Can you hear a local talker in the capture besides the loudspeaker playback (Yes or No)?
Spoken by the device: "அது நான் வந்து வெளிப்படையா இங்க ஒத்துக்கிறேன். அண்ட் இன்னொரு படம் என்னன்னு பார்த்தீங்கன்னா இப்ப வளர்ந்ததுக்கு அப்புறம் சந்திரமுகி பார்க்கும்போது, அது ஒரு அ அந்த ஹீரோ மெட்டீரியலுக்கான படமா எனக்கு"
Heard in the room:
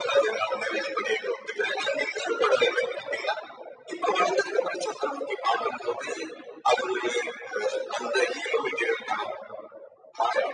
No